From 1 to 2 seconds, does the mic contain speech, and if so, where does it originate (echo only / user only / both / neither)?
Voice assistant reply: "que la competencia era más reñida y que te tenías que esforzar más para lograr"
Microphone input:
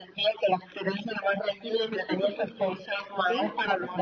both